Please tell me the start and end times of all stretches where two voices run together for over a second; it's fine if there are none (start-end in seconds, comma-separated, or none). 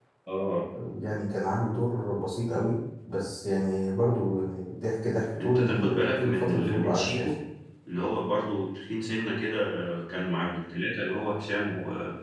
5.4-7.3